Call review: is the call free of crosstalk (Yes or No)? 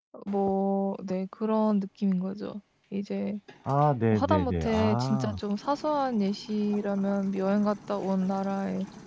No